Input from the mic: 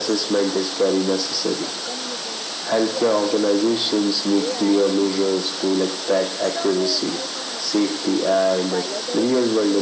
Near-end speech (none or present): present